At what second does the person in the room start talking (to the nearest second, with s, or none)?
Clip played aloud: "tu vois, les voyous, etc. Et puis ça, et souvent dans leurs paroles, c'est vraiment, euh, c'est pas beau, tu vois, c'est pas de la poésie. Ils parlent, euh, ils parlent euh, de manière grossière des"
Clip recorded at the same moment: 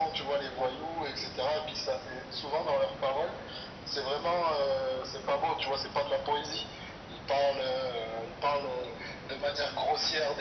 none